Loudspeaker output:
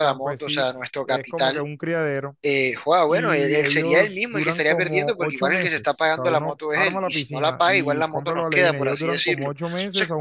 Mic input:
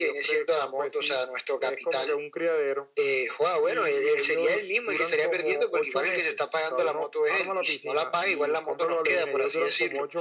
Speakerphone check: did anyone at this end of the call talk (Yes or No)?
No